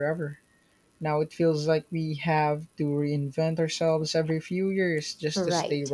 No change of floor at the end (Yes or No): No